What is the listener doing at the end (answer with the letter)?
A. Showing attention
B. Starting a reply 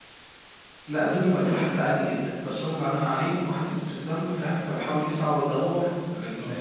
A